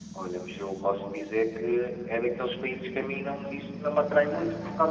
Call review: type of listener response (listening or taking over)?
listening